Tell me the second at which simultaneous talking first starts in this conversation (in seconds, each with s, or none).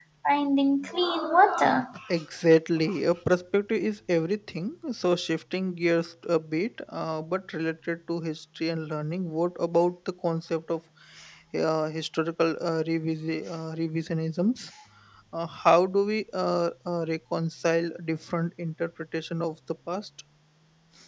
none